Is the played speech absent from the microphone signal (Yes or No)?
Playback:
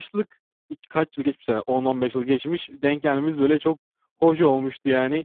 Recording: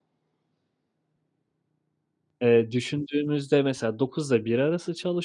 Yes